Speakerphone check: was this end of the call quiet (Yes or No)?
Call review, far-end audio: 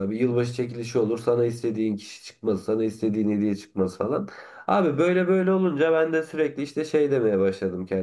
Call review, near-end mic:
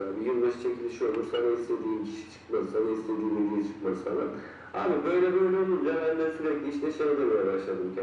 Yes